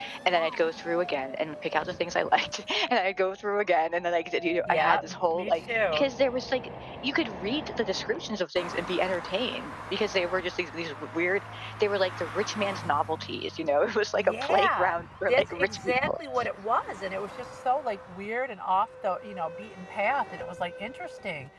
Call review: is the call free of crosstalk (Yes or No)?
No